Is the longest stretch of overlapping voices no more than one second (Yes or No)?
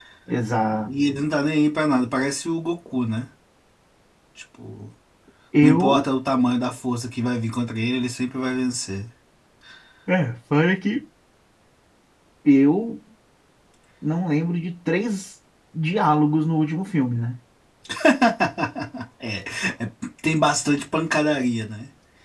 Yes